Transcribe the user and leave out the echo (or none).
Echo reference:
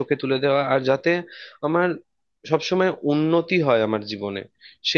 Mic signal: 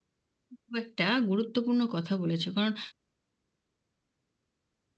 খুব একটা গুরুত্বপূর্ণ কথা বলেছো কারণ